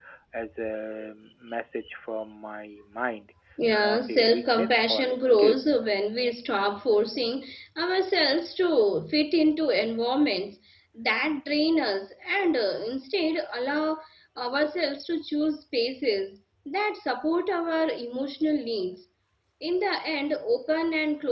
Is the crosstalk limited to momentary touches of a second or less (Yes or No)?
No